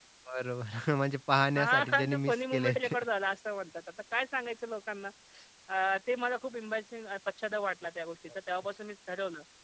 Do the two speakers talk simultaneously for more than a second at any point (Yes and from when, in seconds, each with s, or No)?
Yes, from 1.6 s